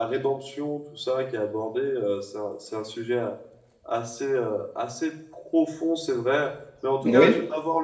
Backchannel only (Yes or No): Yes